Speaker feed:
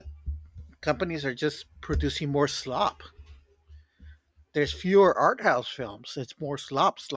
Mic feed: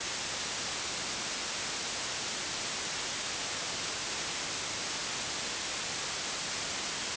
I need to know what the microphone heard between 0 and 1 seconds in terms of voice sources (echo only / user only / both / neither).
neither